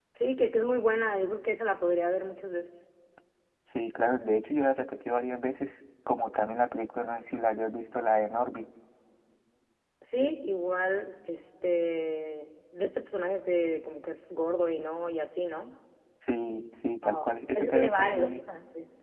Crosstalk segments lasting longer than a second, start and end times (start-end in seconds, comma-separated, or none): 17.0-18.4